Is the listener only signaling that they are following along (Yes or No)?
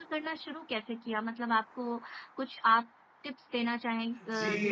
No